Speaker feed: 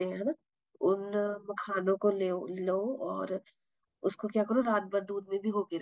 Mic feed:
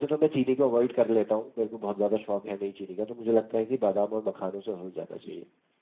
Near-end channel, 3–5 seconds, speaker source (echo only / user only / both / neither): user only